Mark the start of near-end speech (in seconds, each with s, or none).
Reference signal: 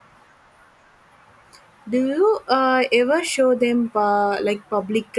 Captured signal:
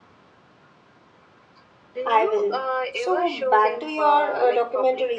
2.0 s